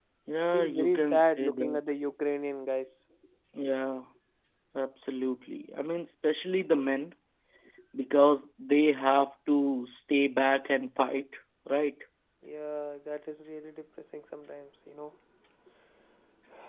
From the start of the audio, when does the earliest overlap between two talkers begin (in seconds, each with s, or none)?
0.5 s